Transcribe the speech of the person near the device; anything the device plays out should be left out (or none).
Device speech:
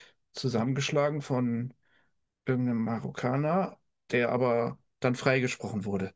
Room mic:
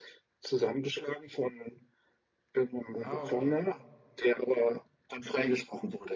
Ah, okay.